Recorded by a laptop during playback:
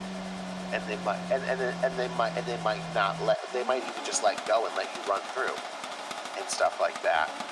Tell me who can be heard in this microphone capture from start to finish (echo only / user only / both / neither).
echo only